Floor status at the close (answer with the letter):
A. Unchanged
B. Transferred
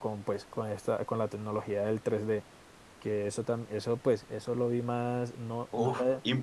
B